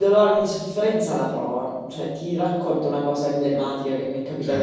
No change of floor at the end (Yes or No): Yes